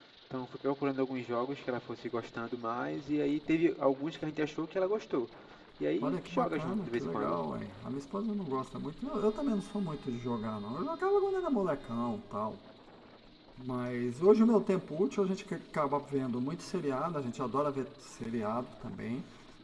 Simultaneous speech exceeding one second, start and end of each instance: 6.0-7.4

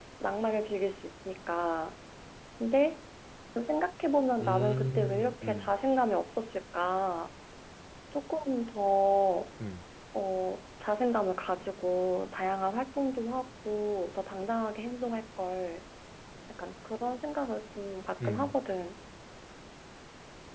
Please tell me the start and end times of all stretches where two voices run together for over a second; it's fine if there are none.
4.4-5.7

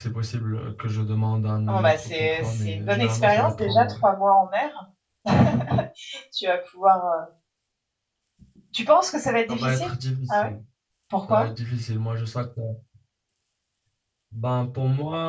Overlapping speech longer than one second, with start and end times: 1.7-3.9

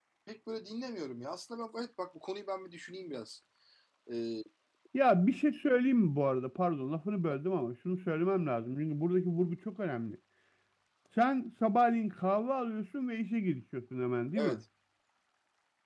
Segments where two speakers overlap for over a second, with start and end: none

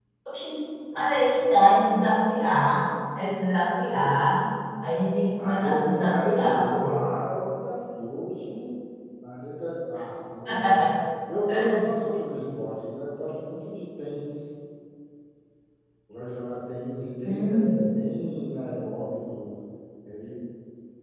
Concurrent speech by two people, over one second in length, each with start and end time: 5.4-7.0

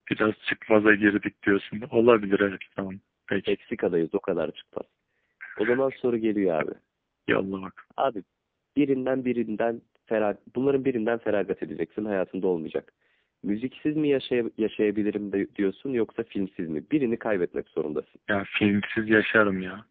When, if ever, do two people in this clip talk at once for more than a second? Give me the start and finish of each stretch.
none

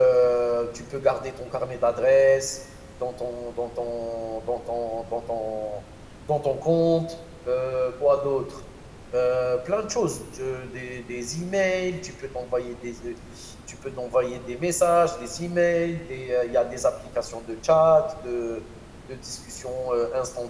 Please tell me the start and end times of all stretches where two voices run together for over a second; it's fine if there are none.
none

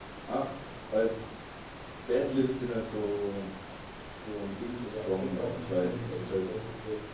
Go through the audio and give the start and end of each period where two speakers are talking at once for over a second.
4.9-6.5

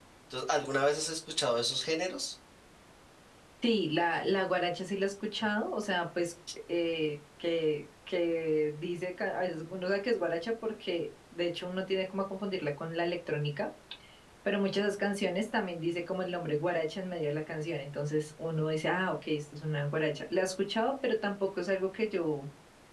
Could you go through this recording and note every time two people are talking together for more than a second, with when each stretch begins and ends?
none

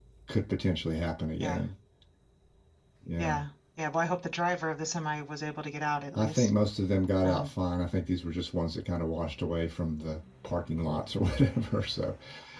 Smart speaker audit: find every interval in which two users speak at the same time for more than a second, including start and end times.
none

